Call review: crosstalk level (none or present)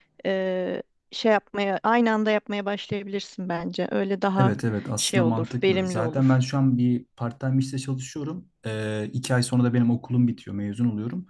present